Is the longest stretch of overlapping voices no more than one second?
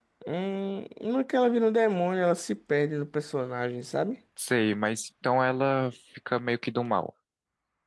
Yes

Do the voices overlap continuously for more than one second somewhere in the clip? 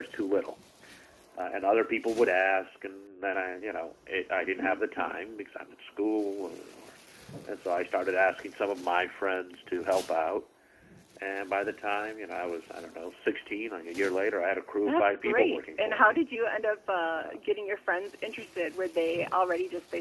Yes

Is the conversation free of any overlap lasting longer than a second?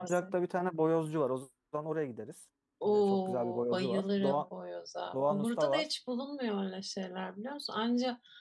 No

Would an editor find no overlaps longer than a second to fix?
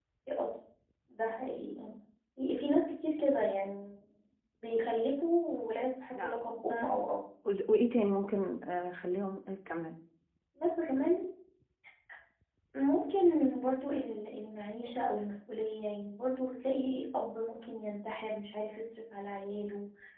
Yes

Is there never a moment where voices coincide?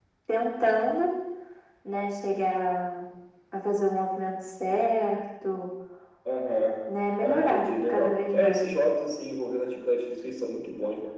No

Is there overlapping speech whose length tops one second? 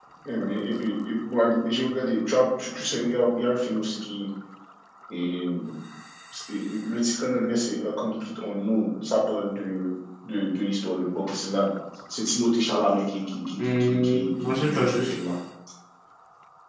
Yes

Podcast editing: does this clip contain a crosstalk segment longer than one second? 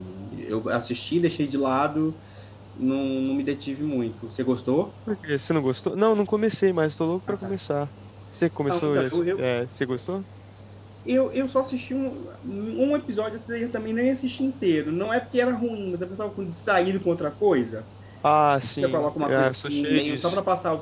Yes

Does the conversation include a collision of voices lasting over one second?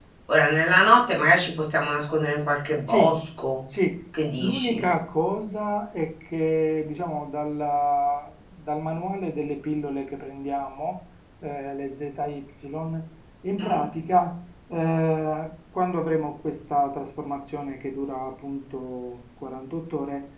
No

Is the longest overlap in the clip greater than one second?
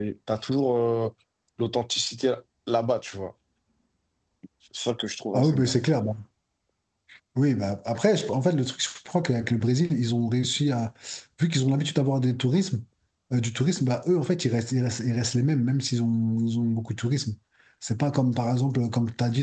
No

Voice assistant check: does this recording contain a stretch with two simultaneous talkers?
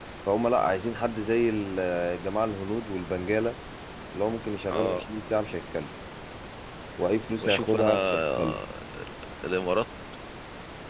Yes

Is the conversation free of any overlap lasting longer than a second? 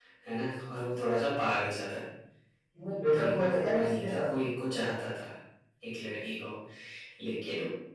No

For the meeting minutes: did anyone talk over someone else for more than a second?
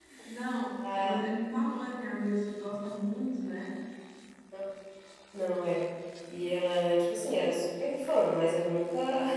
No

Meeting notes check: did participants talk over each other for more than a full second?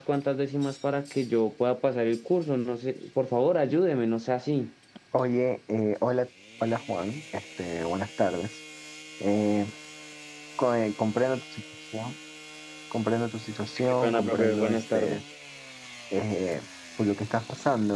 Yes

